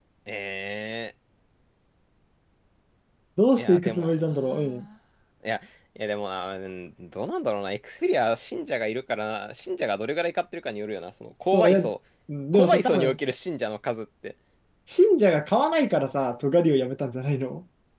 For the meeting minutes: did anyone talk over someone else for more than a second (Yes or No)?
Yes